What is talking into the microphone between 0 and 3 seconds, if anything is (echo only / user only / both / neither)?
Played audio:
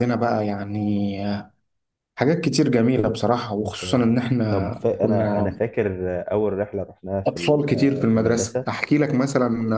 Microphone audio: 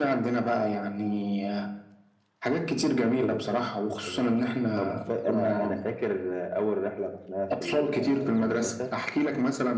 echo only